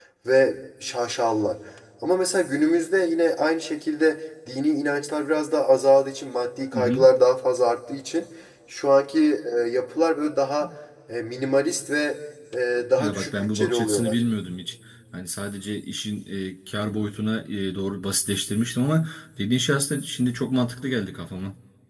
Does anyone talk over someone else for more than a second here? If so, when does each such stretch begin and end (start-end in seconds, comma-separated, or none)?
13.0-14.2